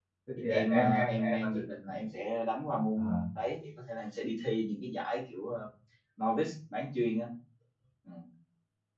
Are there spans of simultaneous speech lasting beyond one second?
Yes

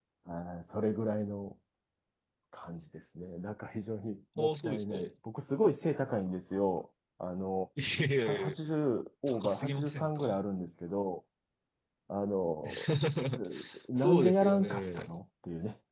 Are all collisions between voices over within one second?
No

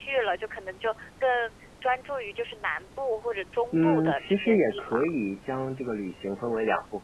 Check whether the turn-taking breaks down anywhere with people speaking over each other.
Yes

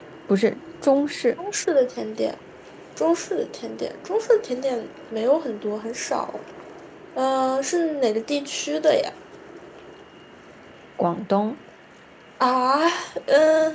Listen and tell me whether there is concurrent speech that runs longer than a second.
No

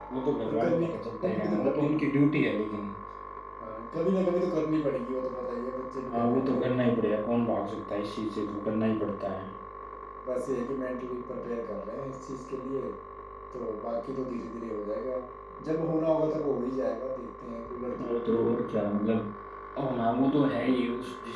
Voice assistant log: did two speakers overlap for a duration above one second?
Yes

